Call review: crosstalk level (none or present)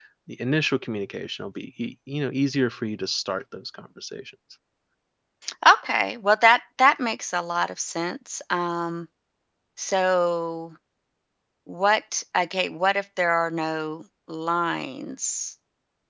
none